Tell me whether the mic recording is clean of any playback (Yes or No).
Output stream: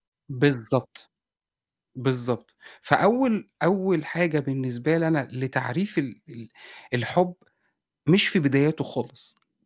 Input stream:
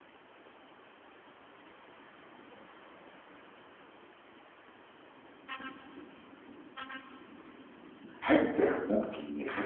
Yes